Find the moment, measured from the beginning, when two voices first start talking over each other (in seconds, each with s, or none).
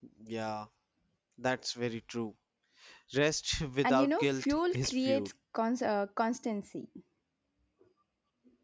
3.8 s